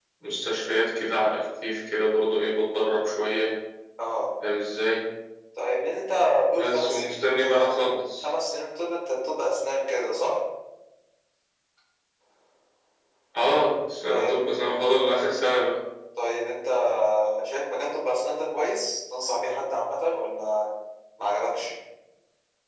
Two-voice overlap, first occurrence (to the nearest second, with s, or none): 7 s